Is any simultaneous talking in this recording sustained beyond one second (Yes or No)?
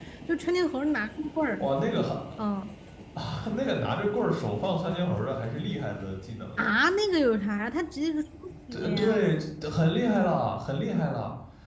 No